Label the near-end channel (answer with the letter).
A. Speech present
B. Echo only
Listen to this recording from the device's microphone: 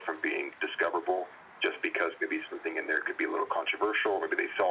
B